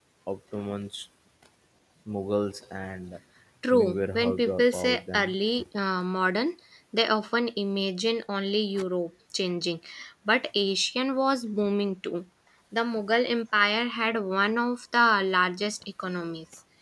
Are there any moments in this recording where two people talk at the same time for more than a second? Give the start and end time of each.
3.7-5.3

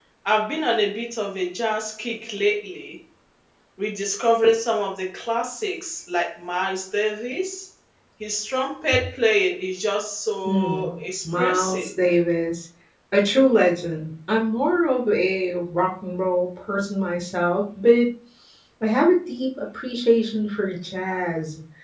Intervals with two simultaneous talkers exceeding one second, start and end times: 10.4-11.9

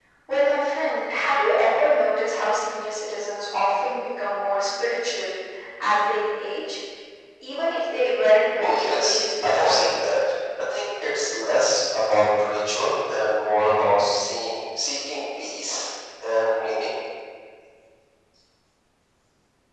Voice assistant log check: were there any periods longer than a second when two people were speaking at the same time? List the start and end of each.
8.6-9.8

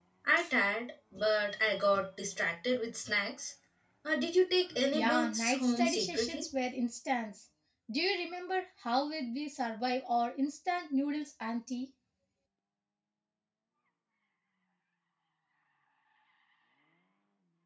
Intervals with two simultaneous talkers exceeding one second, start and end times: 4.9-6.4

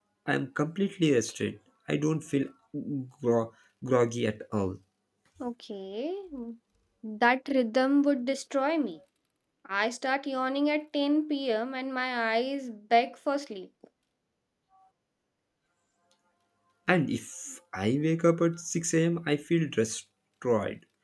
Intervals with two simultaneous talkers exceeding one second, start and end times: none

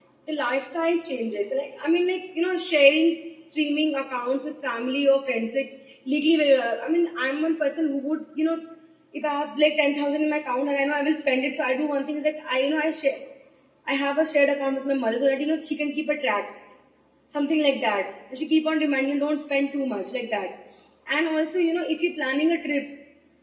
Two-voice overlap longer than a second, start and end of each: none

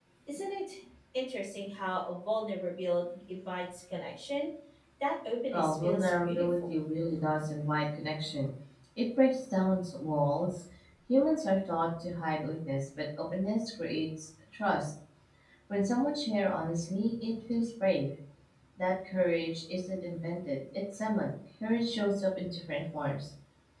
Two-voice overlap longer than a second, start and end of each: 5.5-6.7

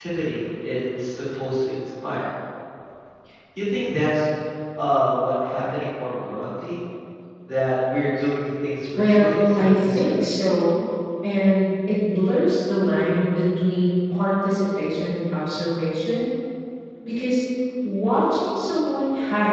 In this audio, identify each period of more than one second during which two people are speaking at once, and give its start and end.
9.0-10.3

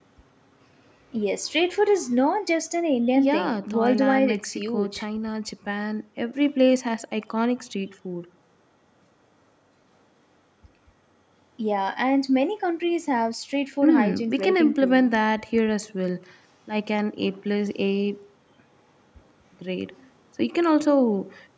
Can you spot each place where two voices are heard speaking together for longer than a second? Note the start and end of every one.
3.1-5.0, 13.8-15.1

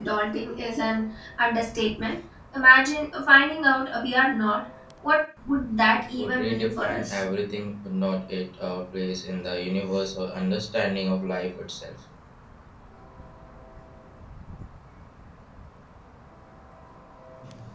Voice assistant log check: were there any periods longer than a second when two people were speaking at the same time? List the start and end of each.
5.9-7.2

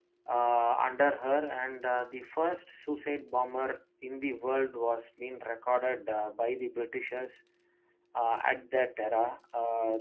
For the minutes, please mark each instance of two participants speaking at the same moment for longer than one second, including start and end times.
none

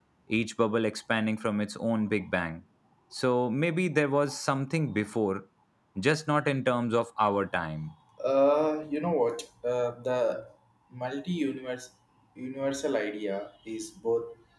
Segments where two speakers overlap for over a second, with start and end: none

